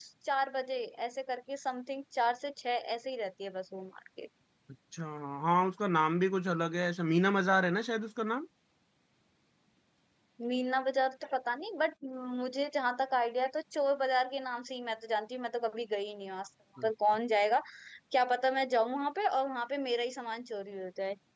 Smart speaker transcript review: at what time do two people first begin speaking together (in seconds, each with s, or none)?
none